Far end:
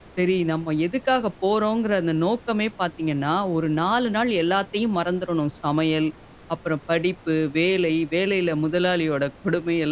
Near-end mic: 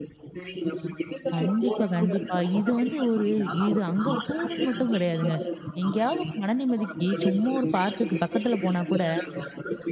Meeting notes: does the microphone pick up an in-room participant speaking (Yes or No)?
Yes